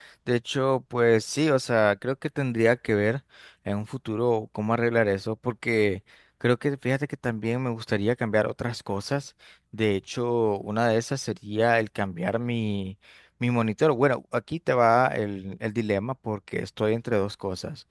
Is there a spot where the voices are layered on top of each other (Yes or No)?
No